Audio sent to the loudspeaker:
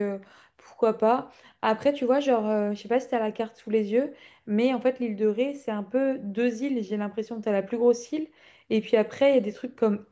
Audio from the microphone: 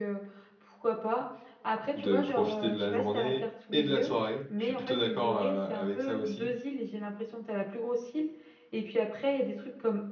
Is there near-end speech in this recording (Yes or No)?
Yes